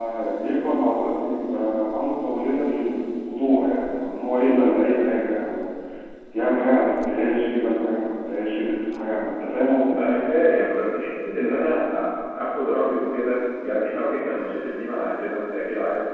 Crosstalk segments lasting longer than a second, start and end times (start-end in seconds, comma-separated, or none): none